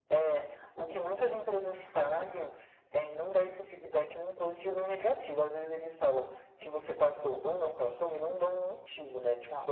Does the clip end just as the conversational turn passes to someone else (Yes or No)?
No